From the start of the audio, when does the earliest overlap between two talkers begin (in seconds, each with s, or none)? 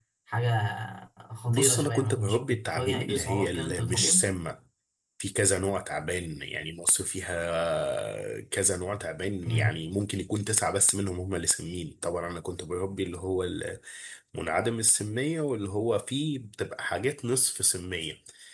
1.5 s